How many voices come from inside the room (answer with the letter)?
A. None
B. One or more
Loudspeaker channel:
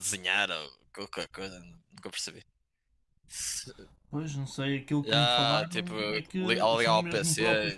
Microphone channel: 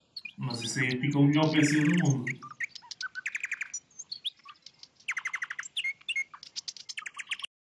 B